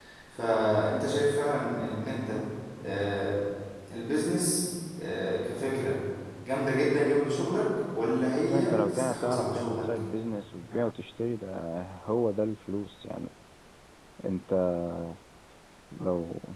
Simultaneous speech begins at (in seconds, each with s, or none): 8.5 s